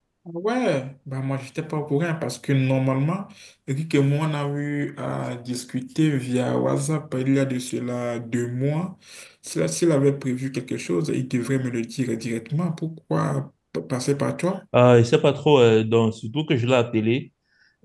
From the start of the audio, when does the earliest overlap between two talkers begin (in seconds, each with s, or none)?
none